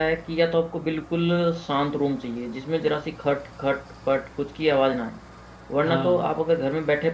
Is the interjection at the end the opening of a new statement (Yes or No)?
No